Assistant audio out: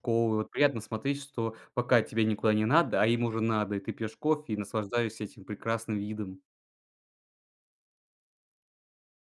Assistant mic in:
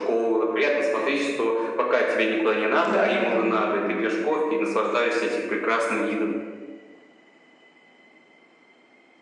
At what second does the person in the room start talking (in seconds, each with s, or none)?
2.9 s